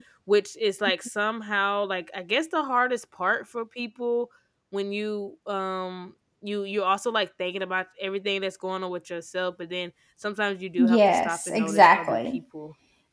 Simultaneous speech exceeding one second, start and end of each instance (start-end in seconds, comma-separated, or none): 10.8-12.4